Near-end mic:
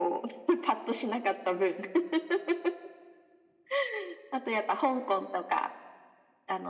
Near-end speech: none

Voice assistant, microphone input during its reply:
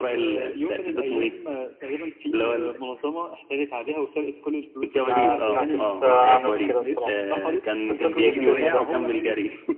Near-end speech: present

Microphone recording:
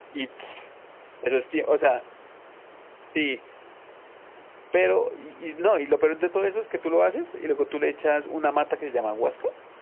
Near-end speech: present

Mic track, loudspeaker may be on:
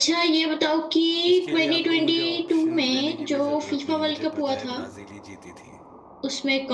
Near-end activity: present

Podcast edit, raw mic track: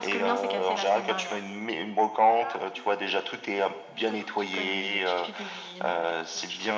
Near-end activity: none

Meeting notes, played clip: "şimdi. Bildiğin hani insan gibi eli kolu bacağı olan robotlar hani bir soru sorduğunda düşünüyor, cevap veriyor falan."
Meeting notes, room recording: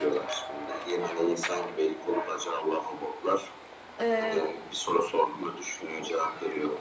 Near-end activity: present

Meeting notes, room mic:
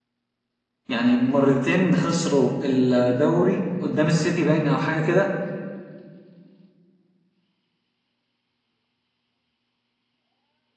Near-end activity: present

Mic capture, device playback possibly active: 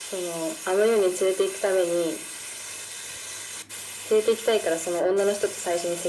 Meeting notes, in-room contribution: none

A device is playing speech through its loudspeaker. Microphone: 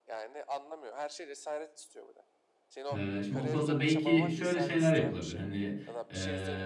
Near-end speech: present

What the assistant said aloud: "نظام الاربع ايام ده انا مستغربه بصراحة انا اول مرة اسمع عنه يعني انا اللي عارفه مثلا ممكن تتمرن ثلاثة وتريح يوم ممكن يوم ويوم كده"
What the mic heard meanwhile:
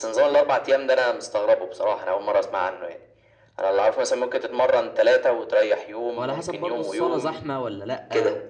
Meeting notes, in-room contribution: present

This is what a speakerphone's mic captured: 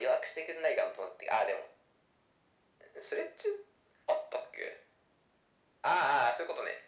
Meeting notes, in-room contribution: none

